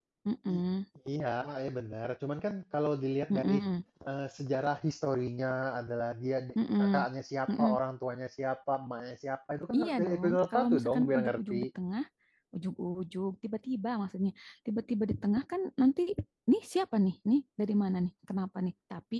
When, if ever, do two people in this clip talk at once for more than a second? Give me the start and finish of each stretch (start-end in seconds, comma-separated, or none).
9.8-11.6